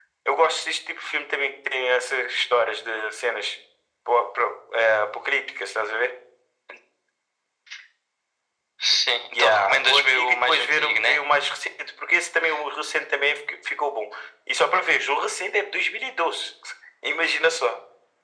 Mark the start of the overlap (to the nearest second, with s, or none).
9 s